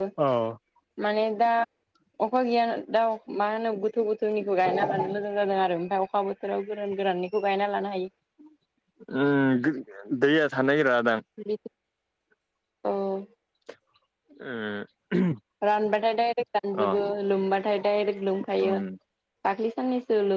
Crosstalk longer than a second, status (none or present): none